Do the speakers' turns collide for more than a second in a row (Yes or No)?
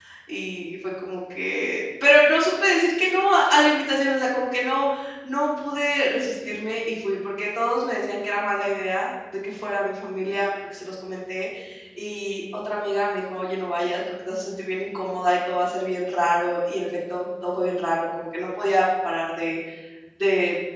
No